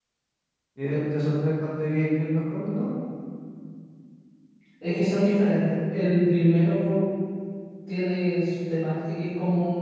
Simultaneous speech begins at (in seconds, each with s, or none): none